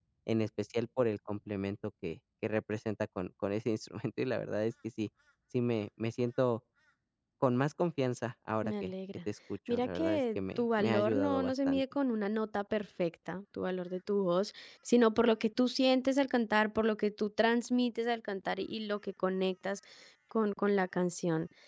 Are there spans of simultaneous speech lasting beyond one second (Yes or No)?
Yes